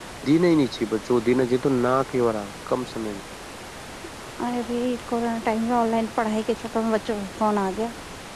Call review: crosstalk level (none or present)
none